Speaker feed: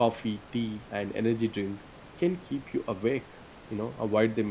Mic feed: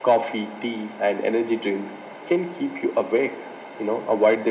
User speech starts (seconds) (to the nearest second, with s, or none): none